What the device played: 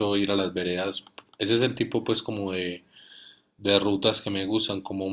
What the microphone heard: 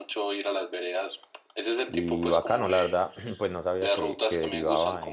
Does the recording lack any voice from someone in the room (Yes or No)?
No